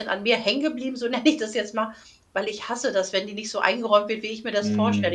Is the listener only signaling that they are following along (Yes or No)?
Yes